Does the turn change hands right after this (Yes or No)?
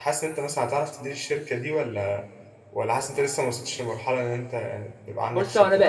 Yes